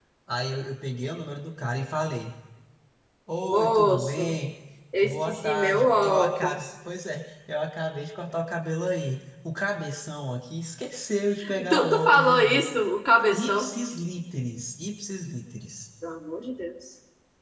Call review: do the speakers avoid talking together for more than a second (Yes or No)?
No